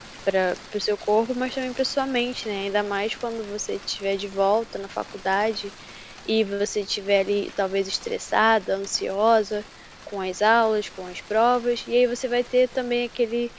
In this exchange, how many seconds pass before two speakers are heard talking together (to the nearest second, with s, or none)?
none